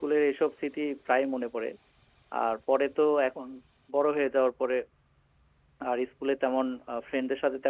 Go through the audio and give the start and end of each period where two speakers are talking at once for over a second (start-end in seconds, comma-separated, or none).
none